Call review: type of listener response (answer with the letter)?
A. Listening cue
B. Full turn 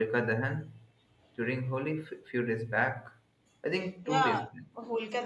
B